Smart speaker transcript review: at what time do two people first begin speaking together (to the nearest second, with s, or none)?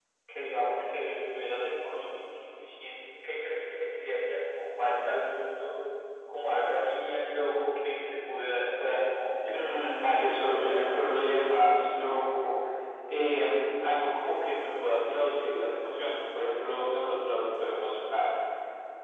9 s